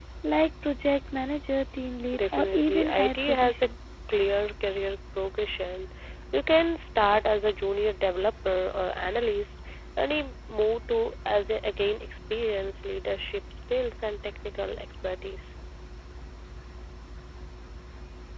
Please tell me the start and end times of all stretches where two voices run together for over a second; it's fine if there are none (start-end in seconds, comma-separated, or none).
2.1-3.7